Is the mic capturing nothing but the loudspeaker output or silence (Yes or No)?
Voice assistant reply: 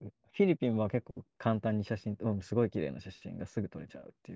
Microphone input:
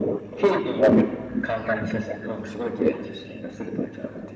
Yes